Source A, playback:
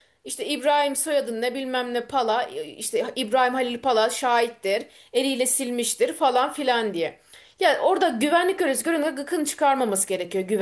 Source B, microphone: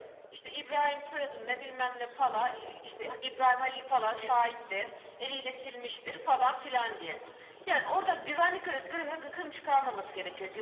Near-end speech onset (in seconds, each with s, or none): none